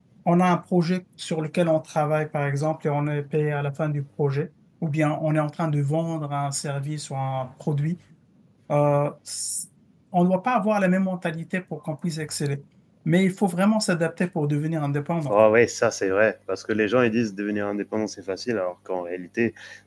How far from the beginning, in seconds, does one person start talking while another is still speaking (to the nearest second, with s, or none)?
none